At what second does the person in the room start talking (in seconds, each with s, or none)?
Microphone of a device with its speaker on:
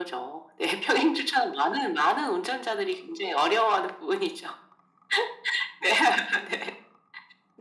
none